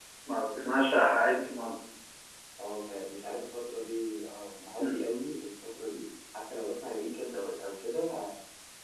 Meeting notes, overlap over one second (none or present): none